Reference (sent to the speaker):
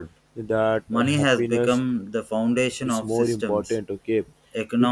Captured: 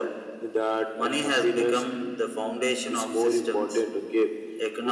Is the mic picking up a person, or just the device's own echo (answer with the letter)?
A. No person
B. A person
A